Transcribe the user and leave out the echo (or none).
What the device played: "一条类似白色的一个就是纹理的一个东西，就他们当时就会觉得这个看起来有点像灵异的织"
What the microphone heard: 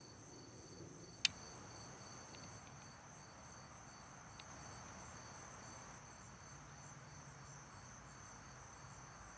none